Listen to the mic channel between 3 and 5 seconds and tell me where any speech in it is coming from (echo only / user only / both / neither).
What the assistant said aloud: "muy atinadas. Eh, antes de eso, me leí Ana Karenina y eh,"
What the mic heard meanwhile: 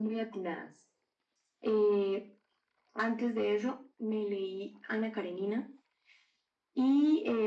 echo only